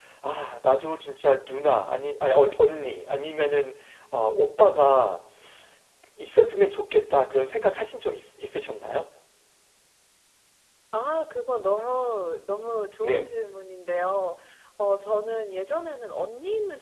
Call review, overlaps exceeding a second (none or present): none